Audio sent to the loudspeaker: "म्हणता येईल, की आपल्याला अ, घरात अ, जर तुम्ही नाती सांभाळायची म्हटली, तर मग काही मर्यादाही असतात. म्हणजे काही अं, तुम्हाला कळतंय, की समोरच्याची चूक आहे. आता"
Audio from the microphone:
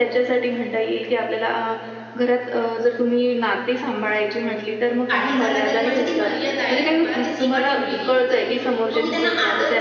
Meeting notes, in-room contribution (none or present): present